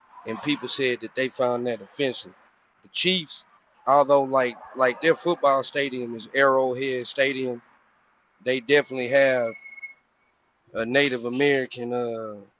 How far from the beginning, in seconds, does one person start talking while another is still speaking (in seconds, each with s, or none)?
none